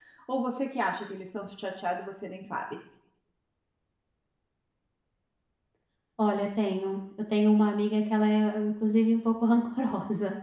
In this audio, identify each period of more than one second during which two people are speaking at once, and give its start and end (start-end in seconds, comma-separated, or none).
none